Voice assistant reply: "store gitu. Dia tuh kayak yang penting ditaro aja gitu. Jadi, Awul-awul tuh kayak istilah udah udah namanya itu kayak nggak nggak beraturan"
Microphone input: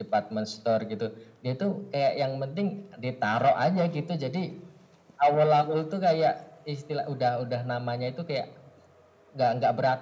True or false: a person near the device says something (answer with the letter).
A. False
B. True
A